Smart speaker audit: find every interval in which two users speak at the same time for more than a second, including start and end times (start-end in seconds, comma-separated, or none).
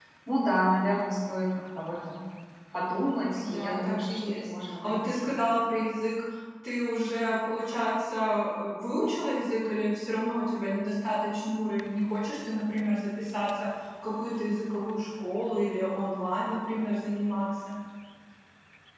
3.3-5.4